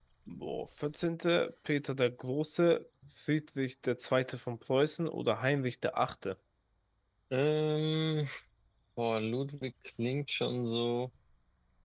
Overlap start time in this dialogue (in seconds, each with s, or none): none